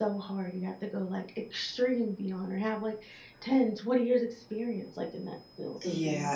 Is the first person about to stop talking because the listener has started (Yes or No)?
Yes